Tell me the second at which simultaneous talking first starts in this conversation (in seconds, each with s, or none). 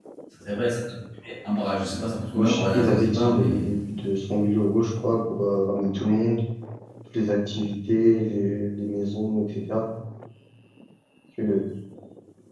2.3 s